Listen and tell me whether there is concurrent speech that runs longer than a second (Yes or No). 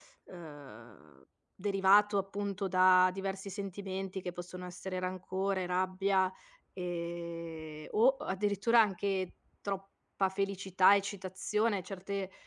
No